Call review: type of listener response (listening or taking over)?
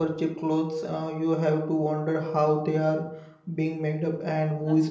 taking over